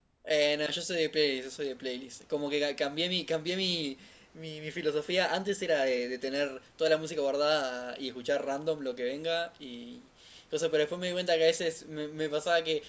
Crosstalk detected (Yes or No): No